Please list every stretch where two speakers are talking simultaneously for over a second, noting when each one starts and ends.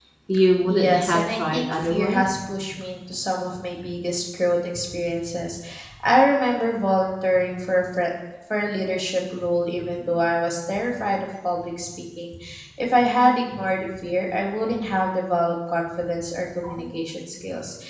0.7-2.2

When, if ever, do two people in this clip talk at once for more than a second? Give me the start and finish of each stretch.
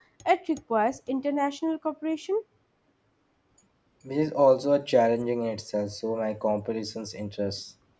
none

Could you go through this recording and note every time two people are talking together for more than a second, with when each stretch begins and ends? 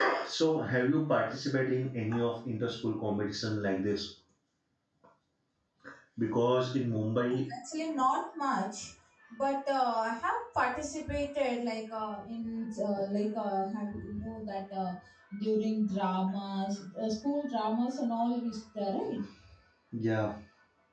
none

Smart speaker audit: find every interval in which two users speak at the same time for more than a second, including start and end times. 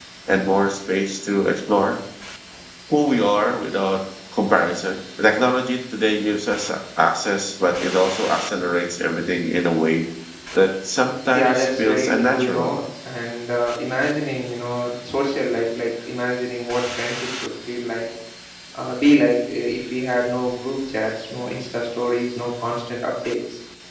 11.3-12.7

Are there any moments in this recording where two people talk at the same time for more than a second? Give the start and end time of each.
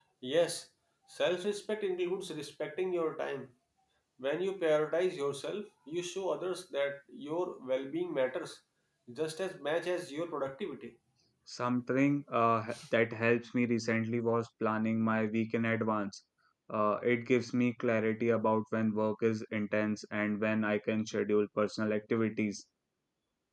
none

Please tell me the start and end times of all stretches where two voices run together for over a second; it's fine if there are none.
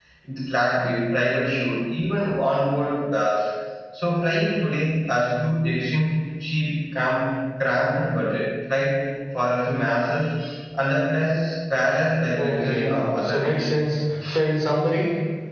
12.4-13.7

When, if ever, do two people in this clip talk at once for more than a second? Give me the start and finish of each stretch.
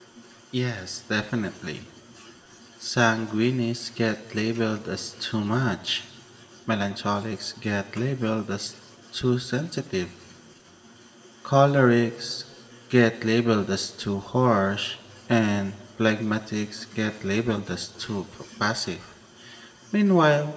none

